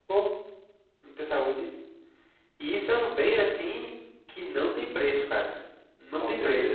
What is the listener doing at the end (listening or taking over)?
listening